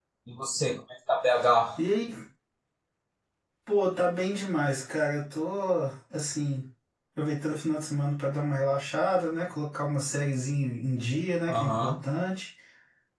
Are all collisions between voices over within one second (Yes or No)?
Yes